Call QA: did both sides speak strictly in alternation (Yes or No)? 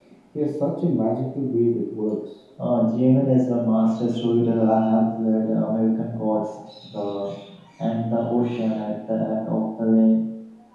Yes